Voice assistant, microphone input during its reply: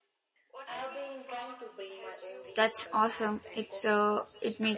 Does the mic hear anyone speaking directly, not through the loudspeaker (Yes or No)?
Yes